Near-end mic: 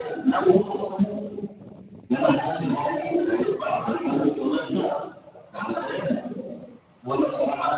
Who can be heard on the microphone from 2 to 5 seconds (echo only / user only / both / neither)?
echo only